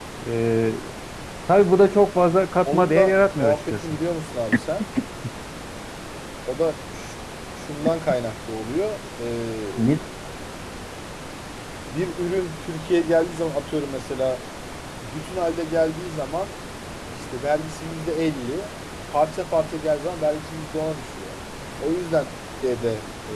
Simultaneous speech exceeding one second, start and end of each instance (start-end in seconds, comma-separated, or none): 2.6-4.0